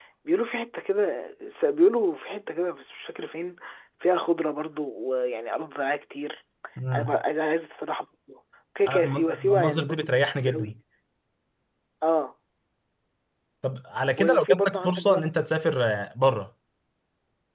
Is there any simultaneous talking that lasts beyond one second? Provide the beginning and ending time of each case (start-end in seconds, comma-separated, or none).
8.8-10.1, 14.2-15.4